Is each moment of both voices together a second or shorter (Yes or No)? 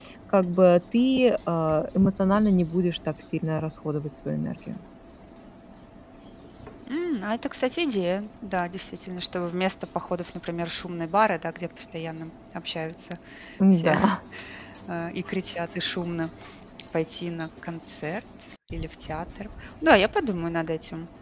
Yes